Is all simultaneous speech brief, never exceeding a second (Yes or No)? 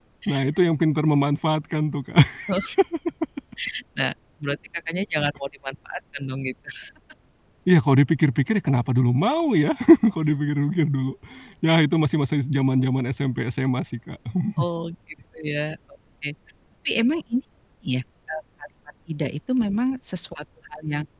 Yes